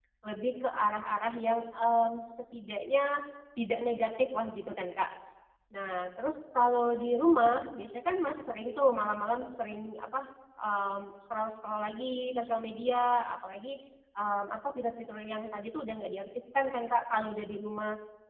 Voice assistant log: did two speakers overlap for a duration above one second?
No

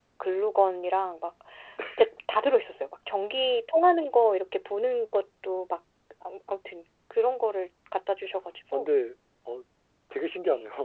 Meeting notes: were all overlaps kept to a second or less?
Yes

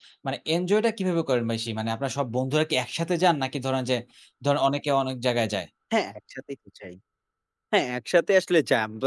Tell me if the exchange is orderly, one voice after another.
Yes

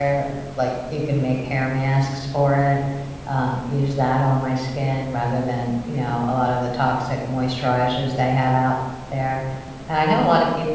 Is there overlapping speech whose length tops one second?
No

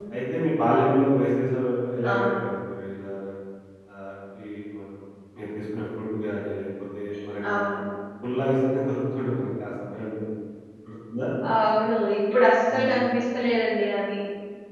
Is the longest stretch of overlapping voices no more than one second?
Yes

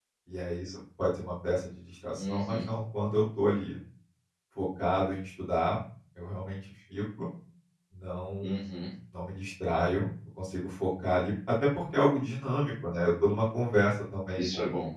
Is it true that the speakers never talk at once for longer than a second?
Yes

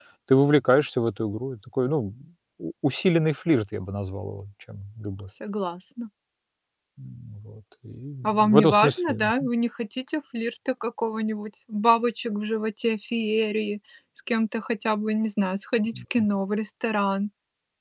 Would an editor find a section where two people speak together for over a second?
Yes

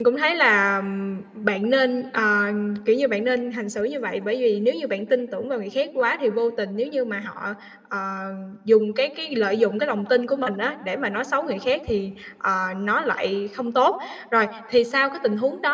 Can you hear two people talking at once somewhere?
No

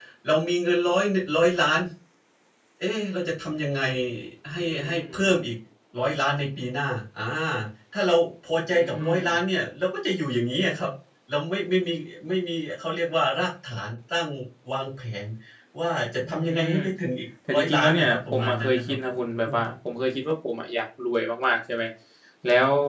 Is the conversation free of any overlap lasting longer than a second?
No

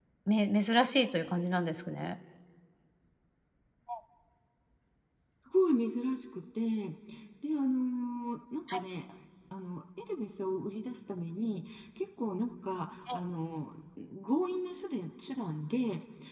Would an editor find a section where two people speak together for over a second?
No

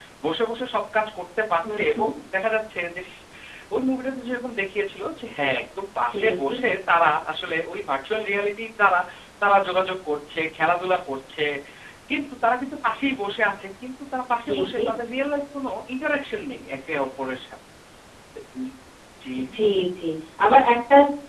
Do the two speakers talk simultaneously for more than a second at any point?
No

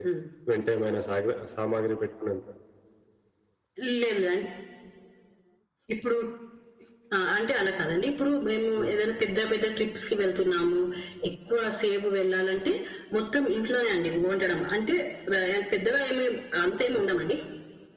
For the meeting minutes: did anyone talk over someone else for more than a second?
No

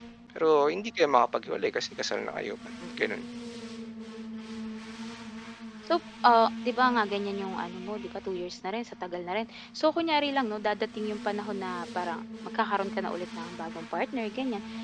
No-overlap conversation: Yes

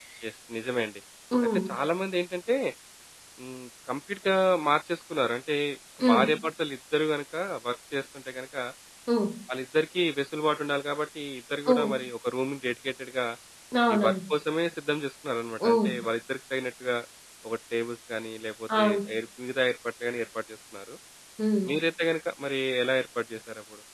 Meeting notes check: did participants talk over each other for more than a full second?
No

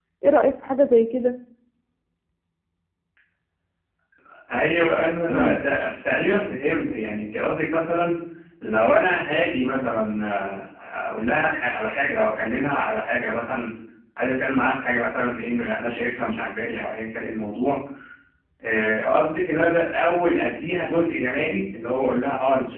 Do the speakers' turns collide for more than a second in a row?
No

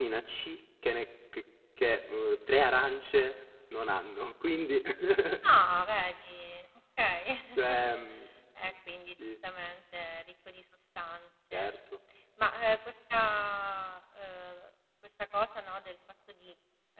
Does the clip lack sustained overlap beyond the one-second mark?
Yes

